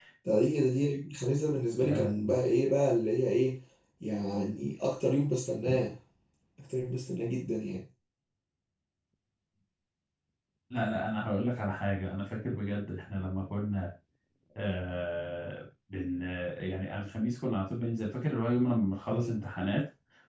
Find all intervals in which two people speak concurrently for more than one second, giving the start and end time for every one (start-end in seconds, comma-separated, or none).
none